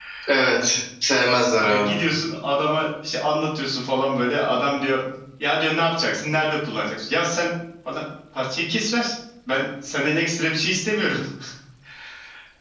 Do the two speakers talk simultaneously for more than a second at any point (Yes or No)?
No